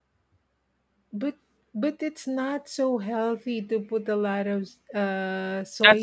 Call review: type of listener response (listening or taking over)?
taking over